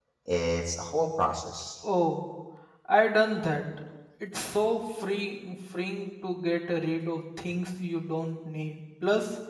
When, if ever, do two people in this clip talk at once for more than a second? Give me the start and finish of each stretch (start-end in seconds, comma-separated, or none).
none